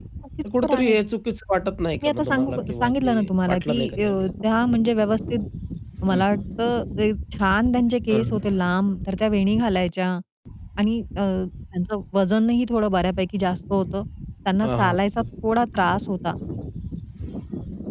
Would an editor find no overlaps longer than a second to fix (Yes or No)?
No